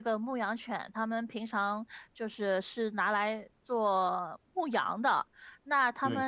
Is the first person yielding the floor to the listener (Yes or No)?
No